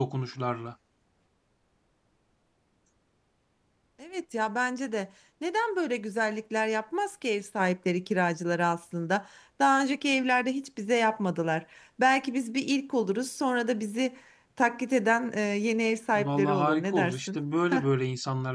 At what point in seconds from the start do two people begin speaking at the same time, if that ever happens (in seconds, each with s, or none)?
16.1 s